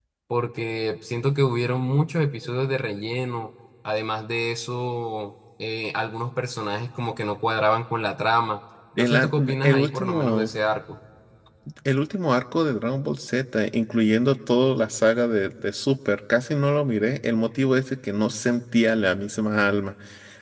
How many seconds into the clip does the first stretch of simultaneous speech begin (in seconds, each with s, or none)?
9.0 s